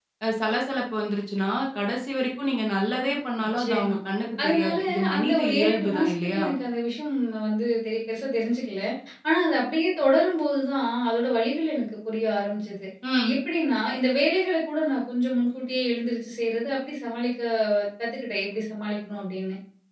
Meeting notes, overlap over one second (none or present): present